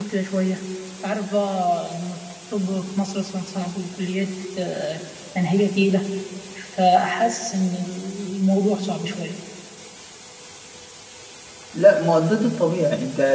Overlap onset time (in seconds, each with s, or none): none